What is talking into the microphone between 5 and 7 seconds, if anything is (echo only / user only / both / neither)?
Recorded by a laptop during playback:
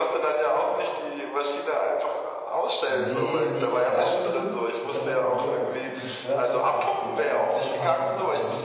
both